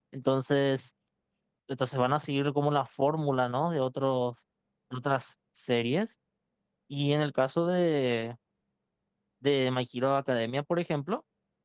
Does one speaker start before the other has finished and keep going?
No

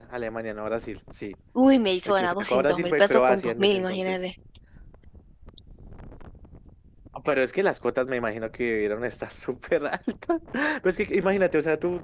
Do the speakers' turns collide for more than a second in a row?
Yes, from 2.0 s

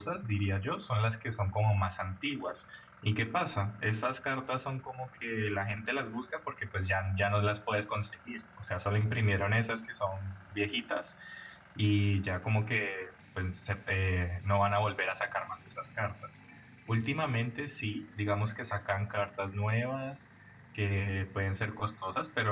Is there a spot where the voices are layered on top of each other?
No

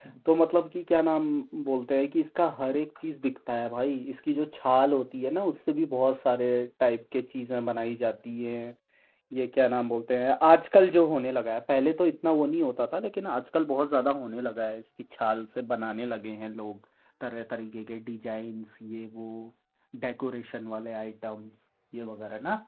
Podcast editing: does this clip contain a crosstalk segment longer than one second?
No

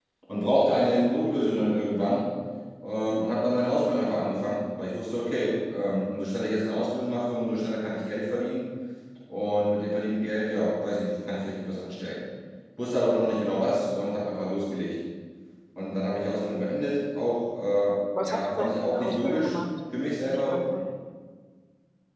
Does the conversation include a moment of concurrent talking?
Yes, from 18.2 s

